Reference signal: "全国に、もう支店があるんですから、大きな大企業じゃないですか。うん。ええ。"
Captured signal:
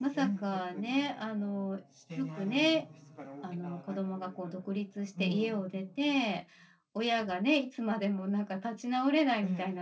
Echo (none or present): present